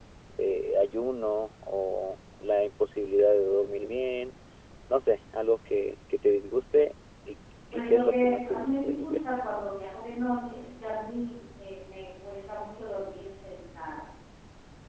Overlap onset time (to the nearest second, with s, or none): 8 s